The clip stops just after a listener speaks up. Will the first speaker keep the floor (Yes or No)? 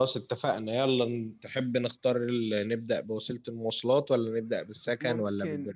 No